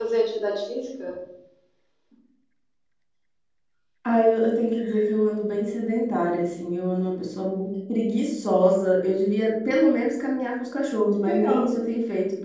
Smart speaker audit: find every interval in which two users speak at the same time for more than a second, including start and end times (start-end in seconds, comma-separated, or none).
none